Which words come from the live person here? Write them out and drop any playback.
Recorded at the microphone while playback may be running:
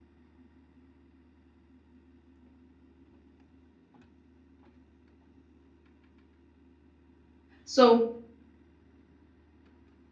so

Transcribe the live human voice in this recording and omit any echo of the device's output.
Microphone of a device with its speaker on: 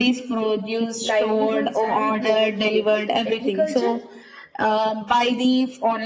livelihoods and global trade like agriculture

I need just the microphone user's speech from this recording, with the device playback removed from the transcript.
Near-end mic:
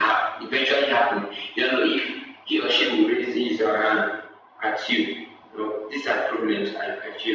none

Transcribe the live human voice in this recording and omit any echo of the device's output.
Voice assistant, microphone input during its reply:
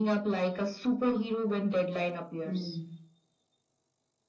Mm.

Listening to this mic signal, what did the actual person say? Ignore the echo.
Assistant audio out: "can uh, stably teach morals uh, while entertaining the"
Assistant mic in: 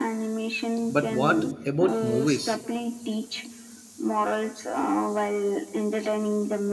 but what about movies?

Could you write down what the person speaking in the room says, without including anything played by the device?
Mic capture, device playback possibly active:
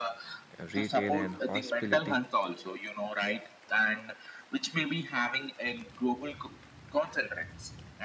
uh, Retail and hospitality

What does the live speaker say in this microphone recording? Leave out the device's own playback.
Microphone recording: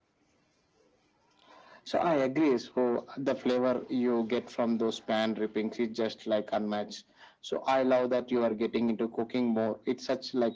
none

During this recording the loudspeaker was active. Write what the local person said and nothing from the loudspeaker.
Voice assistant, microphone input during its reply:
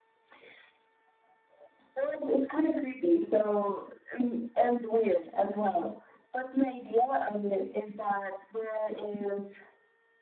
none

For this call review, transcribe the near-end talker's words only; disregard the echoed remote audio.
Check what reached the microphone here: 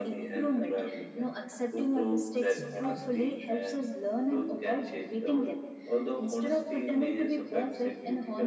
none

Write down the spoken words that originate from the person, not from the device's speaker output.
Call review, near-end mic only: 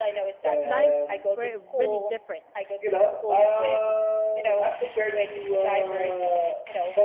lives were really different

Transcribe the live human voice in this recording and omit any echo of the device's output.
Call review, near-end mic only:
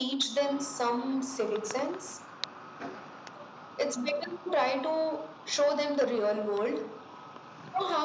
none

